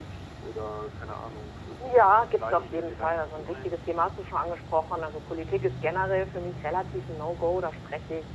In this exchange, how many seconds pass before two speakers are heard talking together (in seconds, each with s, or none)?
1.8 s